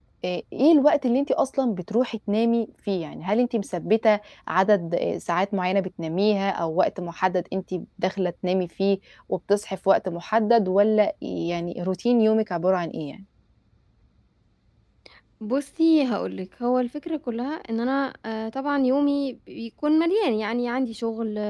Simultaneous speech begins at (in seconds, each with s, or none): none